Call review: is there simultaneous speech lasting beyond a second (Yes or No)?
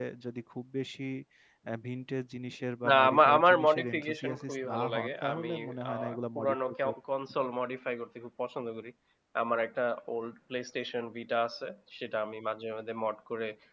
Yes